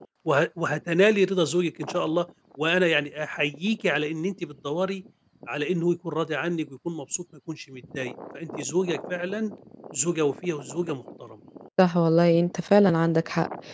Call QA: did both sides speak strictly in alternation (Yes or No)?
Yes